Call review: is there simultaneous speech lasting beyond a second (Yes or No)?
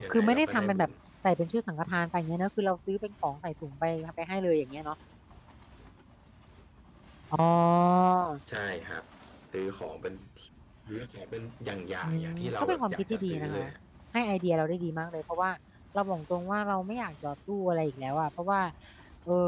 Yes